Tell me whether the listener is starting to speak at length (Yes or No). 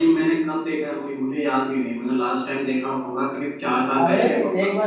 Yes